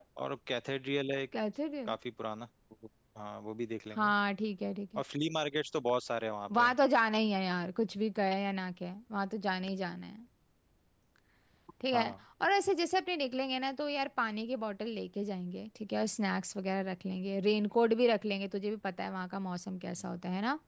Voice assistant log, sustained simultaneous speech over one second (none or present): none